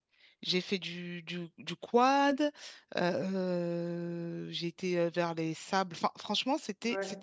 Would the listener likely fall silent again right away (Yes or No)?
Yes